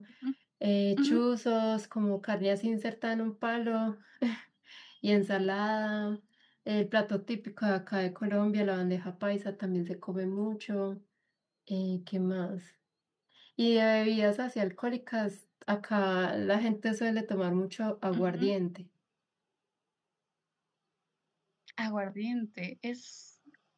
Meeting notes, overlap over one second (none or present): none